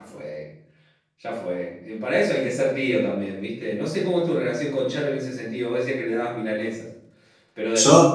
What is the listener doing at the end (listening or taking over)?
listening